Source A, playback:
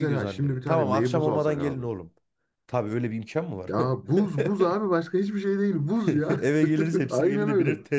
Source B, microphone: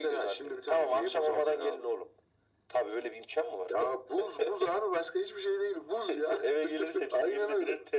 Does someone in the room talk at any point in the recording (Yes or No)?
No